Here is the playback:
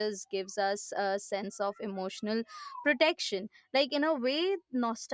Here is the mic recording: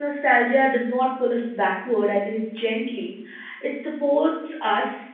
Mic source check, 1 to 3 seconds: user only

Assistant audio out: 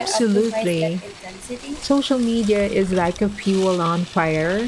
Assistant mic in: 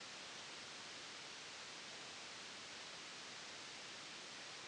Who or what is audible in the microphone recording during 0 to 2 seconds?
neither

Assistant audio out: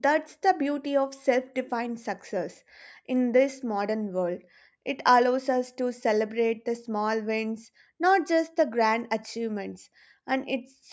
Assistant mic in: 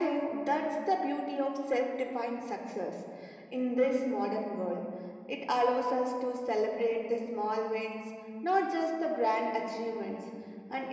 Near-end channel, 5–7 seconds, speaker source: echo only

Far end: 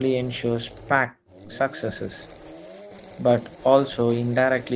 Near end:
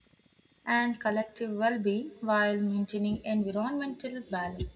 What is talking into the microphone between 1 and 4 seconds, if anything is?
user only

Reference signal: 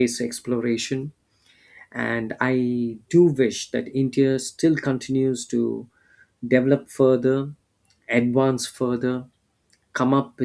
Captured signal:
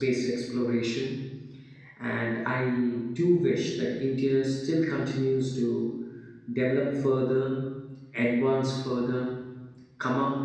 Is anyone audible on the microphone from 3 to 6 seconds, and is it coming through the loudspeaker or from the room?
echo only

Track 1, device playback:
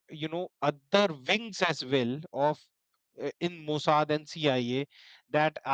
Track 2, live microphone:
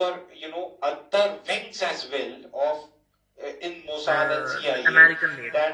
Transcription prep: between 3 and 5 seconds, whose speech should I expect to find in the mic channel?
both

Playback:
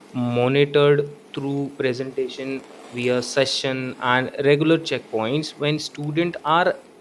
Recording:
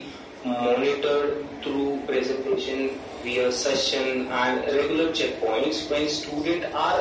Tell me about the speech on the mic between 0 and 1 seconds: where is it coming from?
echo only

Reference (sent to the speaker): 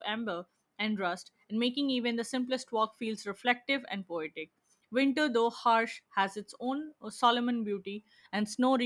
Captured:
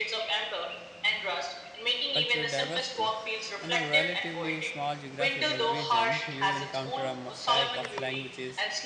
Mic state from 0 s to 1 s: echo only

